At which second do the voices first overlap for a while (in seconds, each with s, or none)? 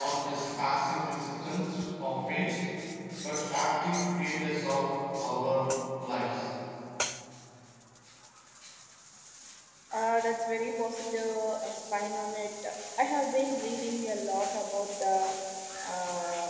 none